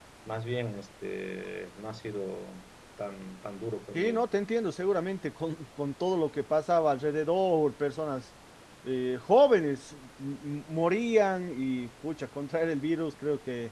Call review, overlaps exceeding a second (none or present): none